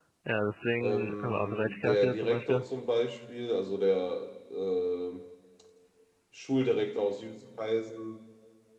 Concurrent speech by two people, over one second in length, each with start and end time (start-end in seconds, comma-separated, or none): 0.8-2.6